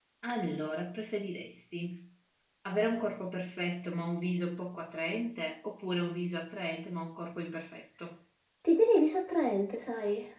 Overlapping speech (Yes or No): No